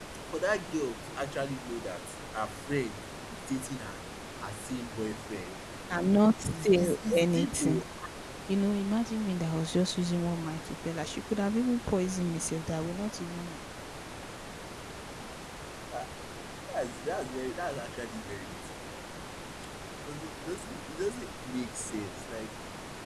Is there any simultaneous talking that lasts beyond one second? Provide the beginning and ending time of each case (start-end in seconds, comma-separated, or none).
6.5-7.8